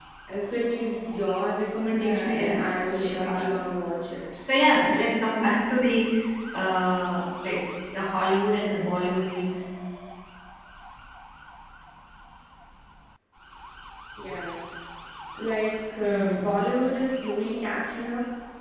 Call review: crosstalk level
present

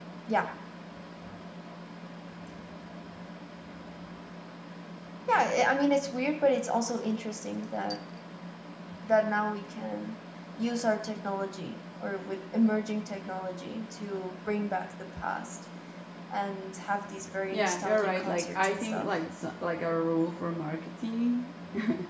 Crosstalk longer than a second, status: present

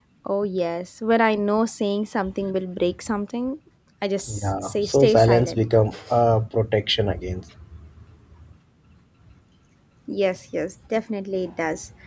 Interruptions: present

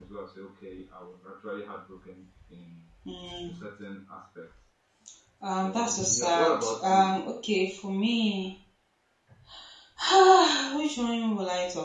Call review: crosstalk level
present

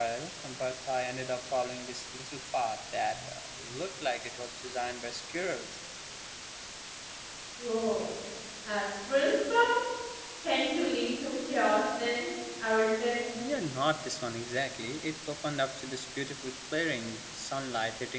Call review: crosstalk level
none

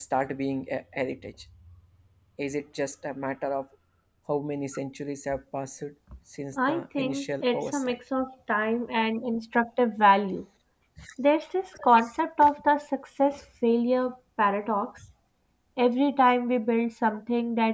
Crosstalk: present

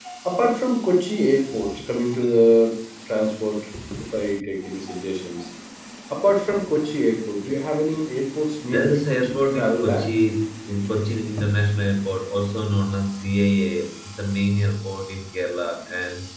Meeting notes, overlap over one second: present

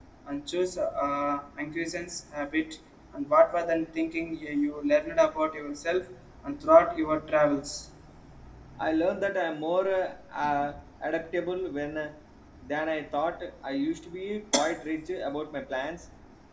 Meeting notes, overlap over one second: none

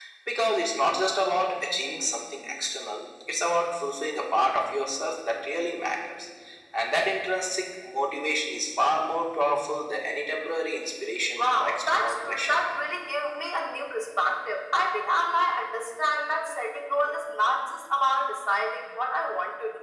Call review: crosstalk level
present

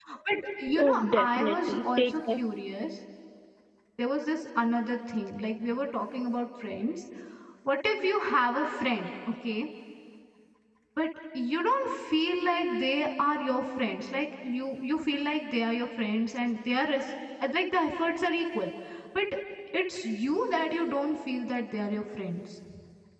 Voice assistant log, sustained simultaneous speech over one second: present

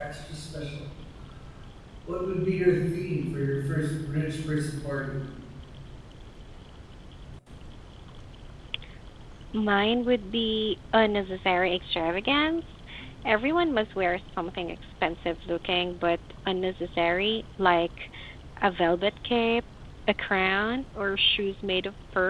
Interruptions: none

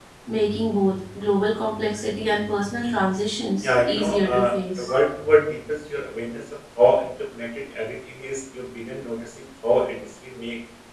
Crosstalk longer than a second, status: present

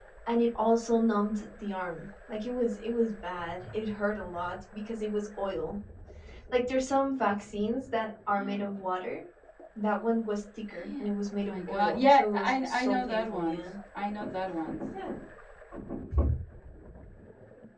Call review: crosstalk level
present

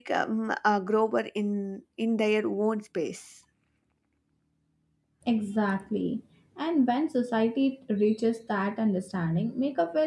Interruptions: none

